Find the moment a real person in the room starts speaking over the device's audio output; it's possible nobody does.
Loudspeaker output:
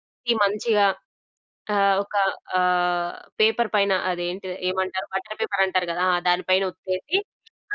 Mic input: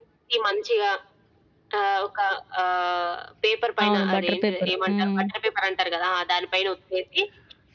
4 s

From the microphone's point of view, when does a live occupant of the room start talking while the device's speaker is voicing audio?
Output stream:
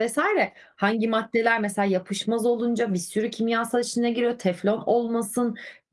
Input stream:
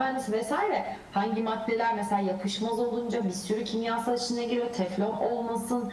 none

